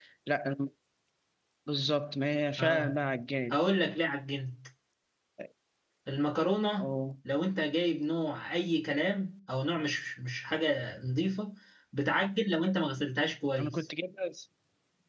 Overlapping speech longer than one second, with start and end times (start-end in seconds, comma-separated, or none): none